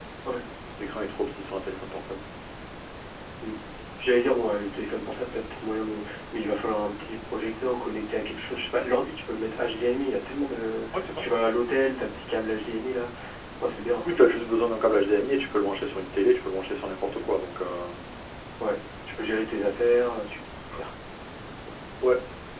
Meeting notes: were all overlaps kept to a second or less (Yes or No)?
Yes